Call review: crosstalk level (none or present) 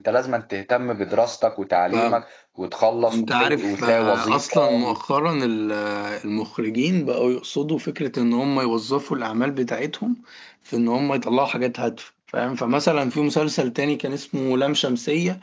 present